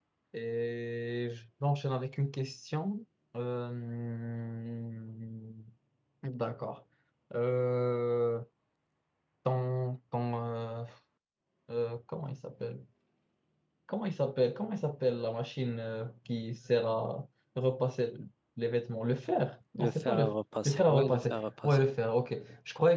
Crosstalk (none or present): present